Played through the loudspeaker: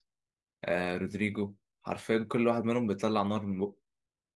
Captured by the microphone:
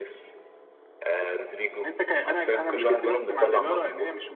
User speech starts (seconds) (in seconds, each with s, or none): 1.9 s